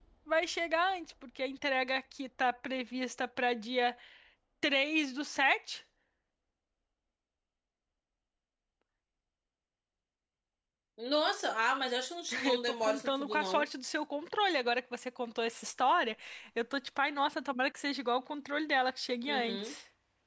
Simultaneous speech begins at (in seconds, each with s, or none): 12.4 s